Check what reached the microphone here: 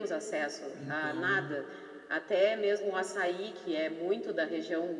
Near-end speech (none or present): present